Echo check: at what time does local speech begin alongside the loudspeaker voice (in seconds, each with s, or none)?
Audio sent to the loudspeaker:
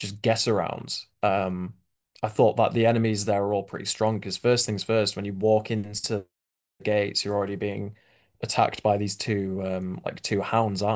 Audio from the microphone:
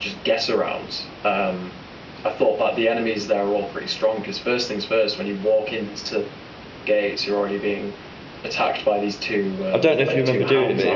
9.7 s